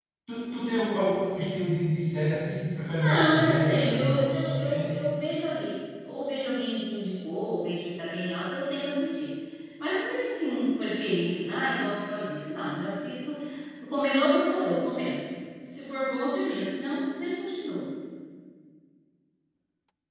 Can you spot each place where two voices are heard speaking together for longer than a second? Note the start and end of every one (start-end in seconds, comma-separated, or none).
2.9-5.0